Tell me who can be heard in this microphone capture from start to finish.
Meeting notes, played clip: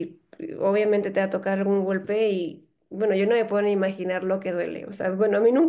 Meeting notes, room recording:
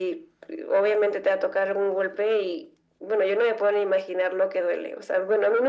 echo only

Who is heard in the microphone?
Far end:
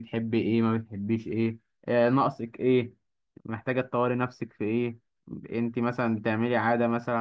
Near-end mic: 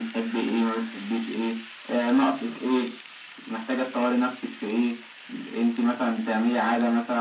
echo only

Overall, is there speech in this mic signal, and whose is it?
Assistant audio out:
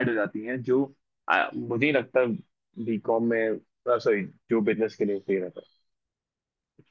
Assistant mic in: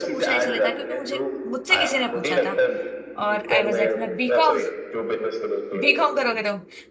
both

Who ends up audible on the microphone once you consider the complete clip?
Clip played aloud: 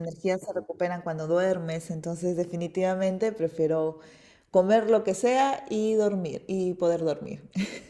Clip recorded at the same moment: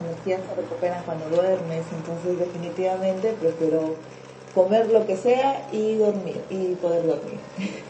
echo only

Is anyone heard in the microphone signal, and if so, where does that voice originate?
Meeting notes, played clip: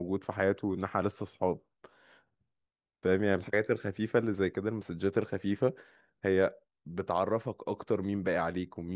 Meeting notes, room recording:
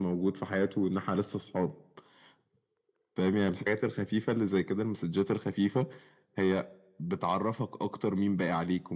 echo only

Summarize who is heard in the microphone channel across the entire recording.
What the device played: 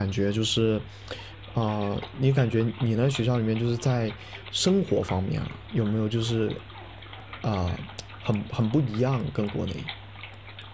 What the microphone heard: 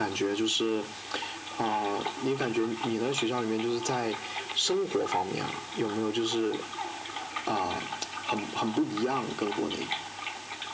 echo only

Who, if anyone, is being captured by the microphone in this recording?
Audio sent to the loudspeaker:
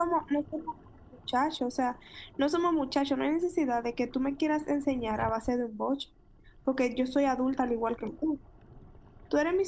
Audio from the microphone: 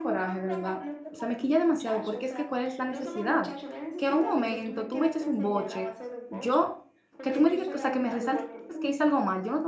both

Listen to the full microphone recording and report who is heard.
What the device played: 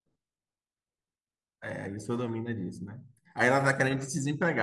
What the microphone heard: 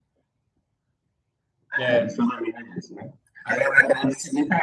both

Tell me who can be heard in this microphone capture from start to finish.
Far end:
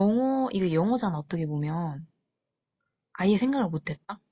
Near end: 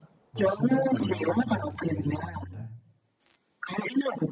both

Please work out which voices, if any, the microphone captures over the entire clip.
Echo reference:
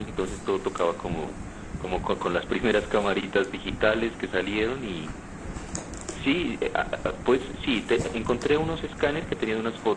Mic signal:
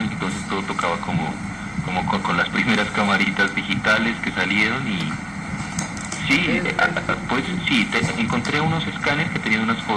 both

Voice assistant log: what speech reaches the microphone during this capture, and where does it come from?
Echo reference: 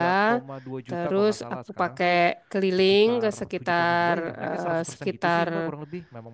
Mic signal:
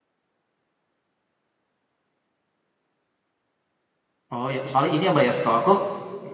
user only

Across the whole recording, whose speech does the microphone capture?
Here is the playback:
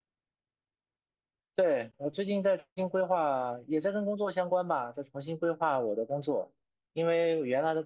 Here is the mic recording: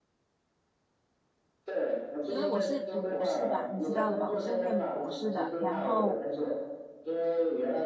both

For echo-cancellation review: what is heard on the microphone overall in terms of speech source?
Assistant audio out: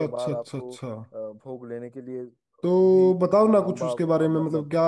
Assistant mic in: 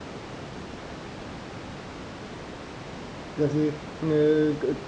user only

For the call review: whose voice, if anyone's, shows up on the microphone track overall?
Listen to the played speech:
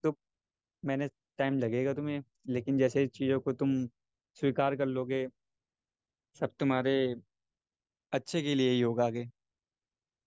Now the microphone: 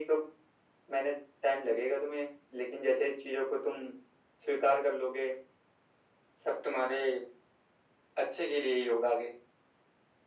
echo only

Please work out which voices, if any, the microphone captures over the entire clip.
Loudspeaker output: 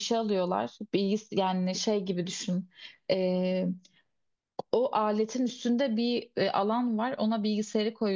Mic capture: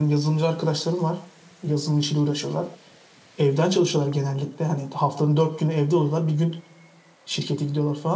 user only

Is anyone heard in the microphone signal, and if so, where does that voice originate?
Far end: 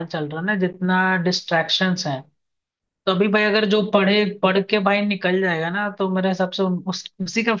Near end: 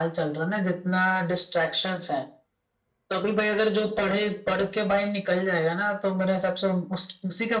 echo only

